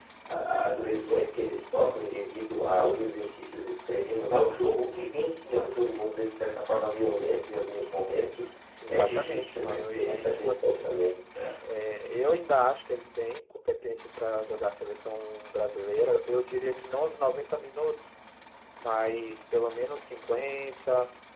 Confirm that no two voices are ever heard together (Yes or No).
No